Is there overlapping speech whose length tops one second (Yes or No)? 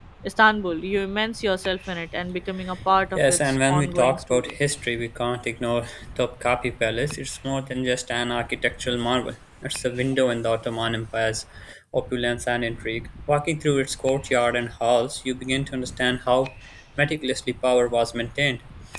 Yes